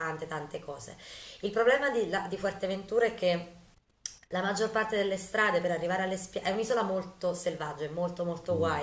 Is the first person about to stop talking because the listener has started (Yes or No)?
No